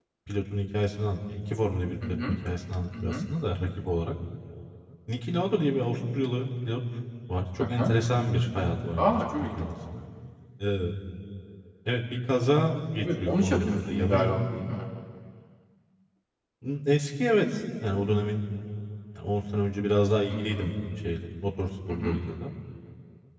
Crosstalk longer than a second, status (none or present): present